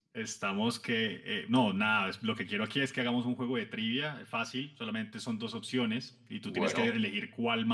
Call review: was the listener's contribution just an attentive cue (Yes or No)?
Yes